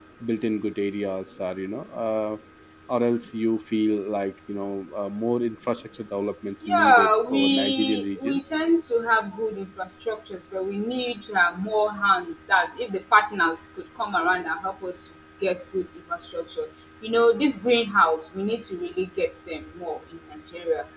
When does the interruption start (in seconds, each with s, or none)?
6.6 s